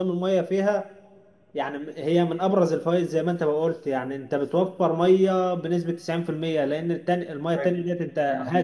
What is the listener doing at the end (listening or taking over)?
taking over